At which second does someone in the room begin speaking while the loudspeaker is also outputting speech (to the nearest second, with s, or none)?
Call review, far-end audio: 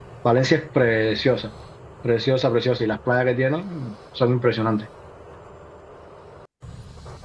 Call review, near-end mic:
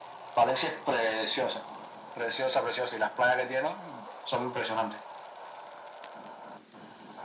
none